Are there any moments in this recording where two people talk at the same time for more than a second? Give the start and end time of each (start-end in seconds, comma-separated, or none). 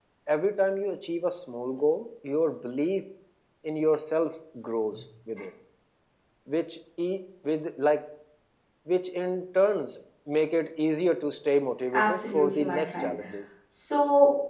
11.9-13.1